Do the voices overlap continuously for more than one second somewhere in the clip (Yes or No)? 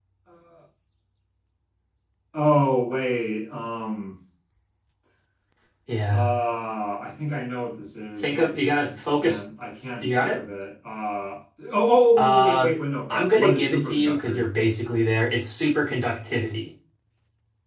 Yes